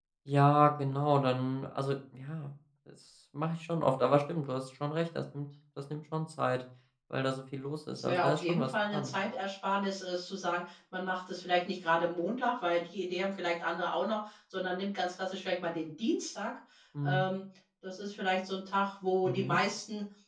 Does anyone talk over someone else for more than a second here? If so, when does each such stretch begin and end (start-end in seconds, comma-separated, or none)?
7.9-9.1